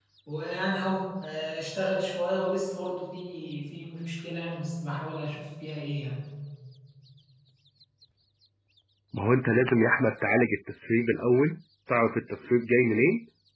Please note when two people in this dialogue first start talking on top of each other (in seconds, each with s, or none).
none